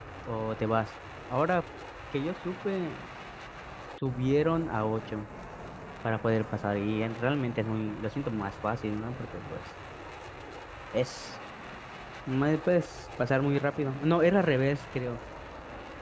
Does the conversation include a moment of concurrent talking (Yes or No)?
No